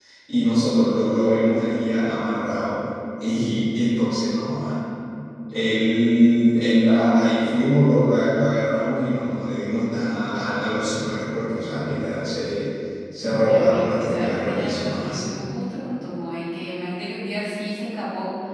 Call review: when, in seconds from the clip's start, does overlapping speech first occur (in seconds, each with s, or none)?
13.2 s